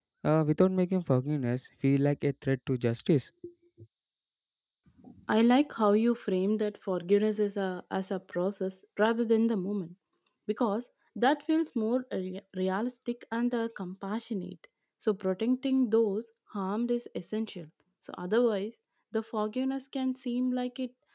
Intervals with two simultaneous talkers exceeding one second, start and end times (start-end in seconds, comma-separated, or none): none